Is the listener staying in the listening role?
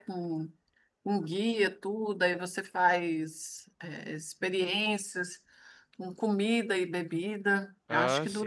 Yes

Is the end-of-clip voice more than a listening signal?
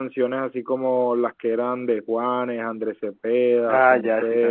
Yes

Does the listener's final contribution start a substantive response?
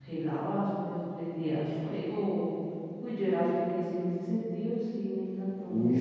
Yes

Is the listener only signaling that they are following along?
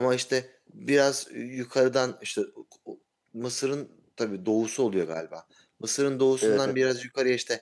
Yes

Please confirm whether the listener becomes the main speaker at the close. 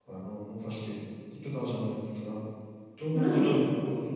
No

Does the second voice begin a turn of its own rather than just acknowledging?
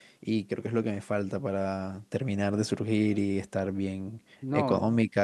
No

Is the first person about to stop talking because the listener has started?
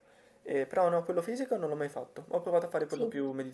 No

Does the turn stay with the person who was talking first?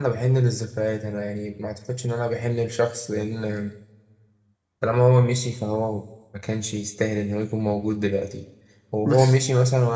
Yes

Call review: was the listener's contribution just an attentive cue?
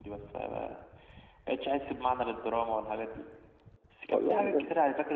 Yes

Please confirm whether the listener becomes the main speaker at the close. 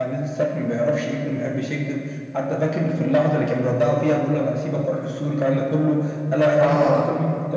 No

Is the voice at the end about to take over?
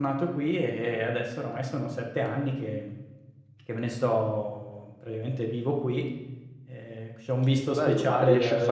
Yes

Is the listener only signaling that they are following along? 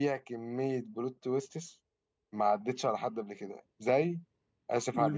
No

